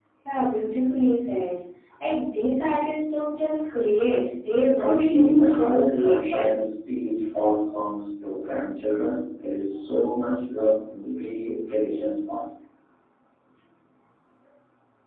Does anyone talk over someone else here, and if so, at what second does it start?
4.8 s

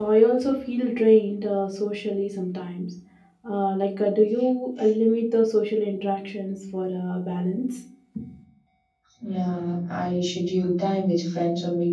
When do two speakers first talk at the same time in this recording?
none

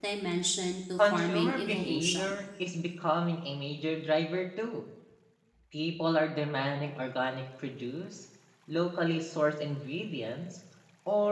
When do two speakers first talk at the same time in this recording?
1.0 s

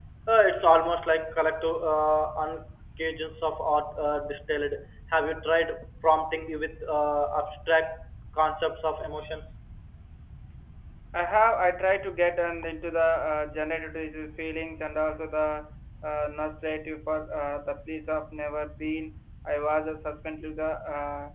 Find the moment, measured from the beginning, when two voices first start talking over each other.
none

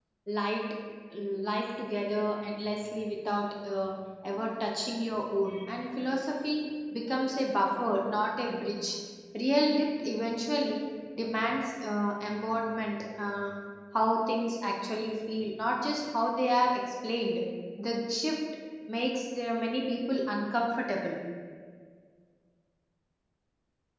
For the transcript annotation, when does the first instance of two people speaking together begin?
none

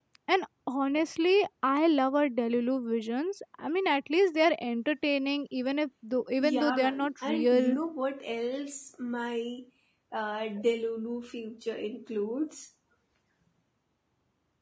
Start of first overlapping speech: 6.4 s

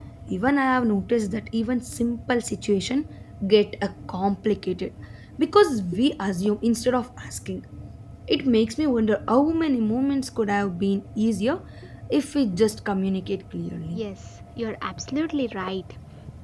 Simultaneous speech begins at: none

